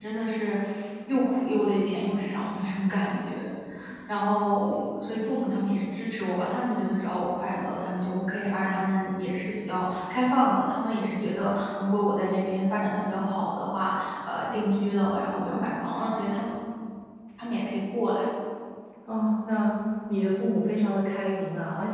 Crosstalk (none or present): none